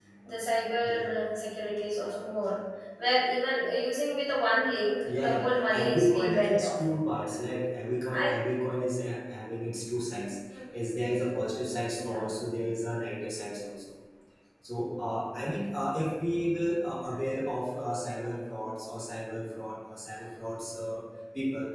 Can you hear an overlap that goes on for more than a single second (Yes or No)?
Yes